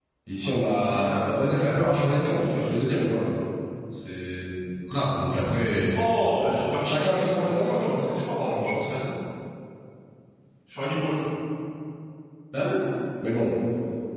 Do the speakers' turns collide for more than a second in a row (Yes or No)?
Yes